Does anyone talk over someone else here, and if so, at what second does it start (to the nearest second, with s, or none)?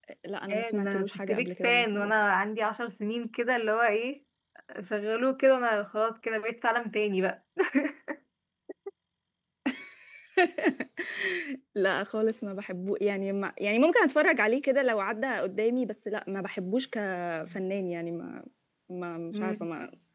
1 s